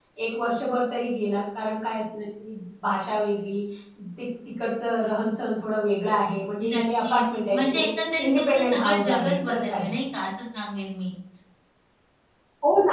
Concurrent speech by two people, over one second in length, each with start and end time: 6.7-9.9

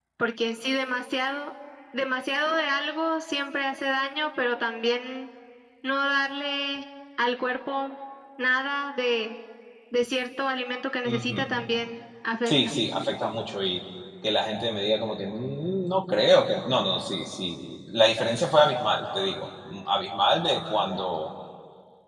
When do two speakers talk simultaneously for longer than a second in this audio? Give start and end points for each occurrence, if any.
none

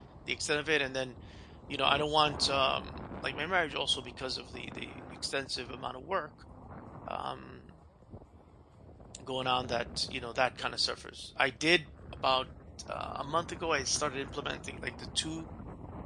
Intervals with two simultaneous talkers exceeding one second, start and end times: none

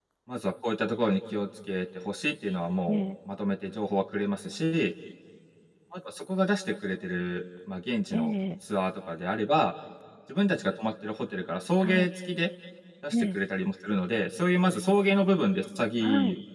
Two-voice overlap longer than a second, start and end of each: none

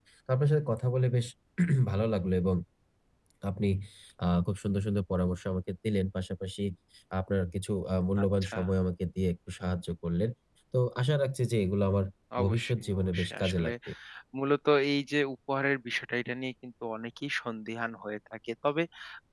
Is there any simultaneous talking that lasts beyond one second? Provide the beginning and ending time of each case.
12.4-13.7

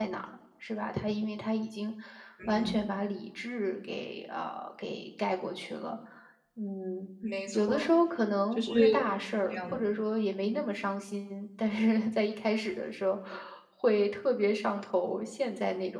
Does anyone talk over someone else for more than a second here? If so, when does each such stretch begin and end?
none

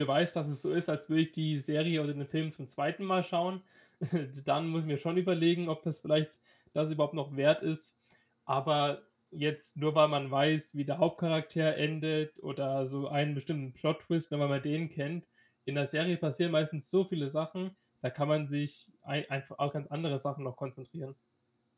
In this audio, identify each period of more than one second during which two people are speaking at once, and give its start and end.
none

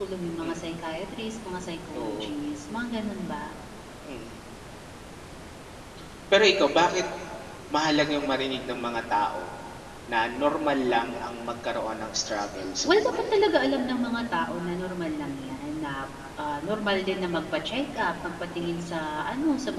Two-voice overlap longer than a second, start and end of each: none

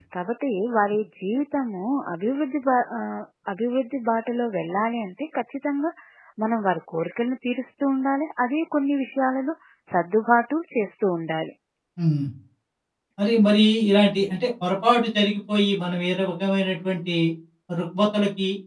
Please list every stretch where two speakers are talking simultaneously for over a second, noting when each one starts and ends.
none

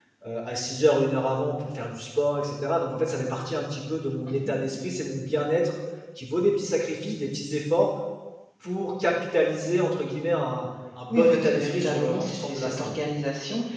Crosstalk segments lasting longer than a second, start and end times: 11.1-13.0

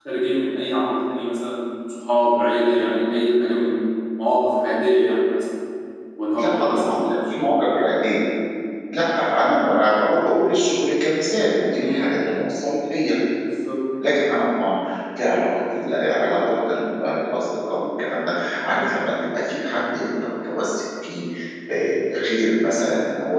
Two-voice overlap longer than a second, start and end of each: 6.3-7.6

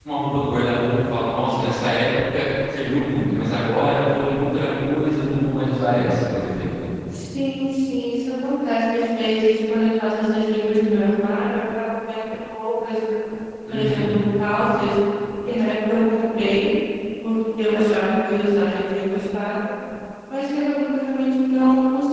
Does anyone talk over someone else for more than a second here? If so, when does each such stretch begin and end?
none

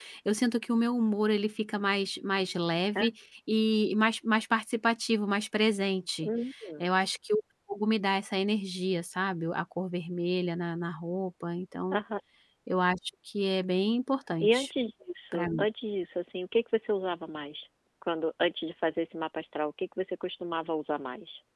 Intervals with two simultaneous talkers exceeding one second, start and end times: none

